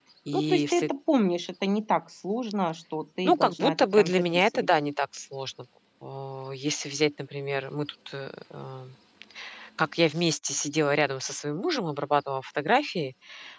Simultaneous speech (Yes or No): Yes